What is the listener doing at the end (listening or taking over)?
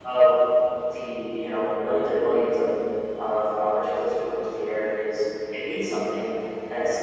listening